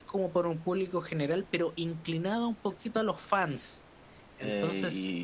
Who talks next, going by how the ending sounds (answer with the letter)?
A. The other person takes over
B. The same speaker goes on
A